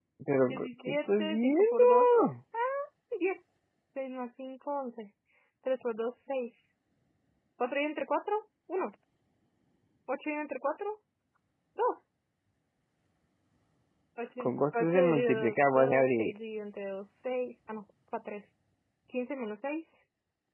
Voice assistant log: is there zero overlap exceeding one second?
No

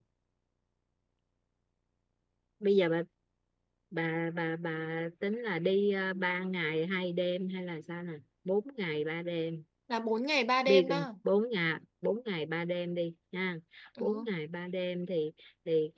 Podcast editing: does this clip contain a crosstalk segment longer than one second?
No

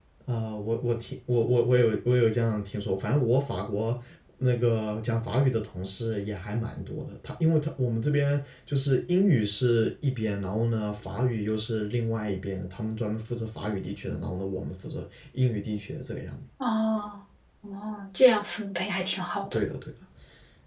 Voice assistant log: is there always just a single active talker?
Yes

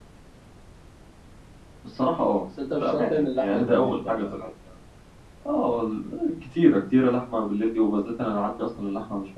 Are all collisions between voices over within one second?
No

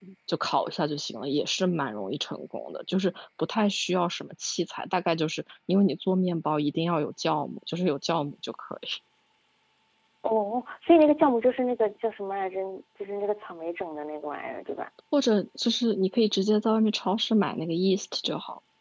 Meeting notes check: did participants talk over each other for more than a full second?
No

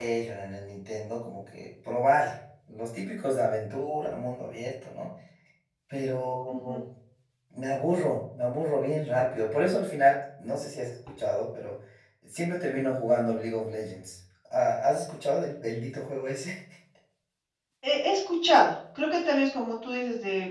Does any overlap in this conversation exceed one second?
No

